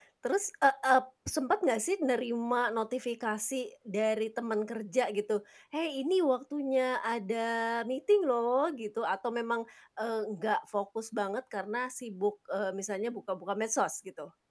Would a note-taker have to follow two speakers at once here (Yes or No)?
No